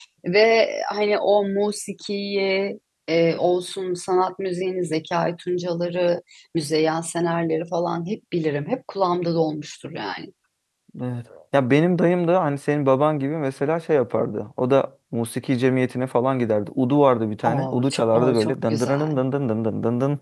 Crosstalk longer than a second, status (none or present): present